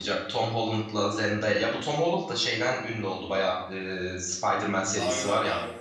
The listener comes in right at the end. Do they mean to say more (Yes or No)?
Yes